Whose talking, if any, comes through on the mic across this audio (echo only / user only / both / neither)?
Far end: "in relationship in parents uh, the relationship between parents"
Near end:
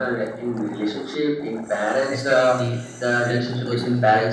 both